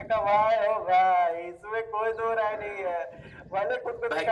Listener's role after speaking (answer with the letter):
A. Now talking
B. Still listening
B